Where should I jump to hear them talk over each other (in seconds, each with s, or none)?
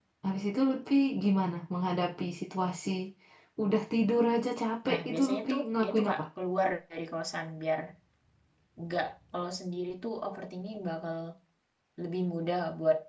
4.8 s